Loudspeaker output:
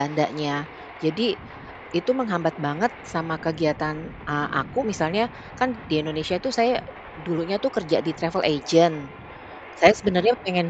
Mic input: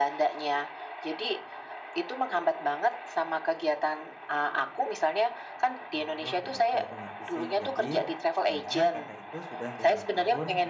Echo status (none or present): present